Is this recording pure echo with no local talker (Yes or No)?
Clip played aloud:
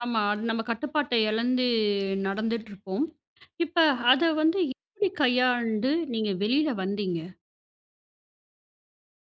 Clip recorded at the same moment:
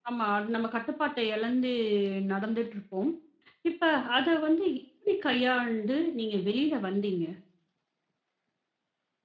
Yes